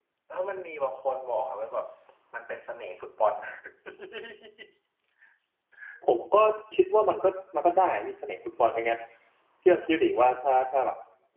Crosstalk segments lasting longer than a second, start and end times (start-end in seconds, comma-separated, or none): none